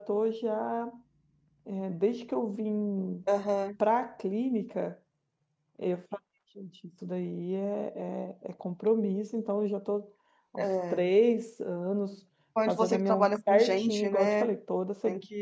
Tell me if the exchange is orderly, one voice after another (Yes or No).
No